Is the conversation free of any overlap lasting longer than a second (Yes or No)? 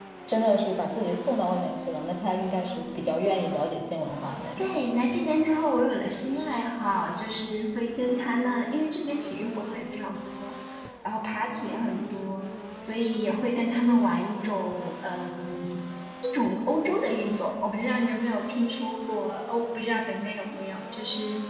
Yes